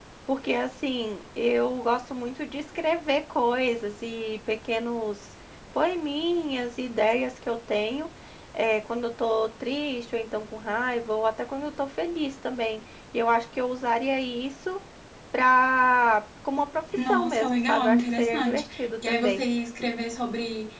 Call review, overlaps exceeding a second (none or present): present